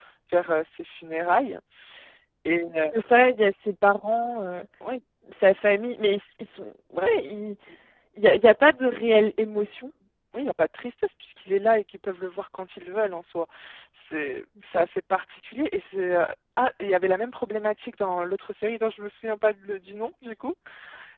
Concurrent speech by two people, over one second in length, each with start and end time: none

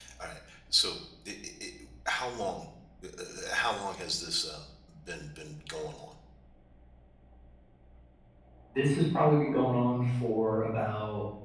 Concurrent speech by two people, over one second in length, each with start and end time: none

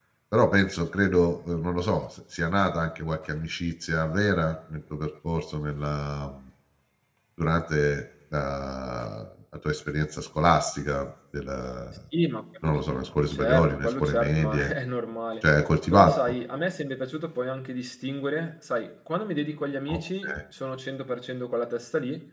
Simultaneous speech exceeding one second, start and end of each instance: 13.3-14.7

